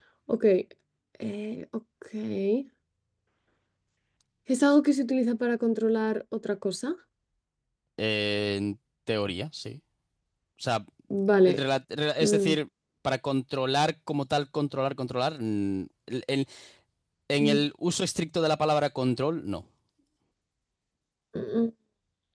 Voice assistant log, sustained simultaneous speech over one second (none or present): none